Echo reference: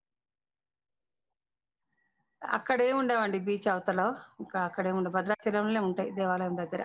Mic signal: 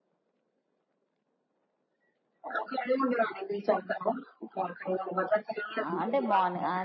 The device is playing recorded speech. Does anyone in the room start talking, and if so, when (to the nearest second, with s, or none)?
6 s